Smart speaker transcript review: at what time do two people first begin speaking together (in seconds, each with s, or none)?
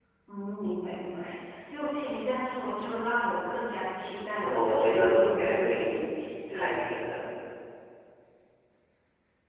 4.4 s